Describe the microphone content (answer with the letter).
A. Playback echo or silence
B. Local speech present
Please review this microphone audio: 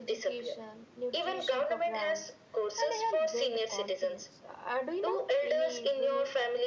B